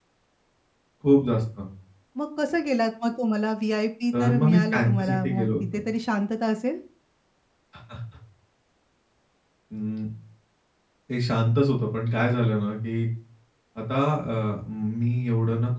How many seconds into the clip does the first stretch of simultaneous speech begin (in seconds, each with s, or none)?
4.1 s